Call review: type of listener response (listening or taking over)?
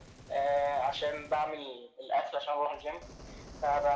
listening